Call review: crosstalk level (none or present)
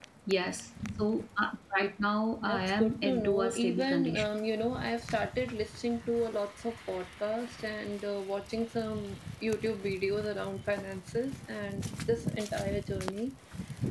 present